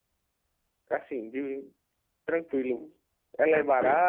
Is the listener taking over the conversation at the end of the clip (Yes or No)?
Yes